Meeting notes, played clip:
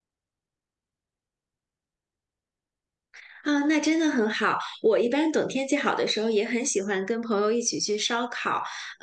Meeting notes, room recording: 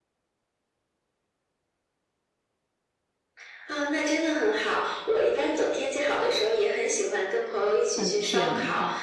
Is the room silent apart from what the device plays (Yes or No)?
No